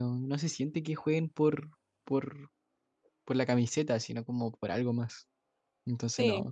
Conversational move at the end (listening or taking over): taking over